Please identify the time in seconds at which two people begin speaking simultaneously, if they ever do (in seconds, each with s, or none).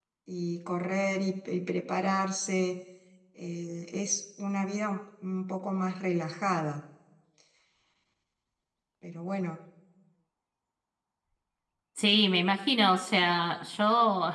none